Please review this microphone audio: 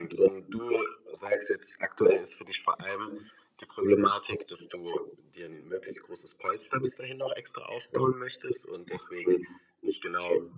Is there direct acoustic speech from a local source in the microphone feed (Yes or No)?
No